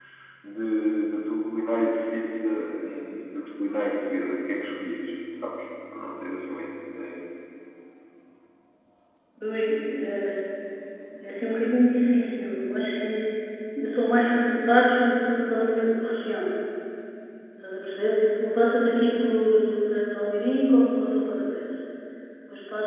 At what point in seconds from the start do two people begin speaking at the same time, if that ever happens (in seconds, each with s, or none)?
none